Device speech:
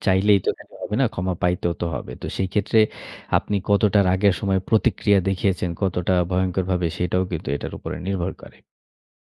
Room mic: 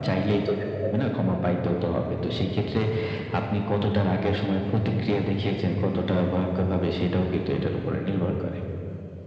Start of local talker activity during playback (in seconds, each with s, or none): none